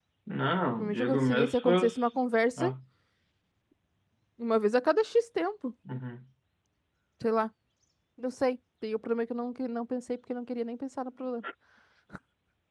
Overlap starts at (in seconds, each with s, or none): 0.8 s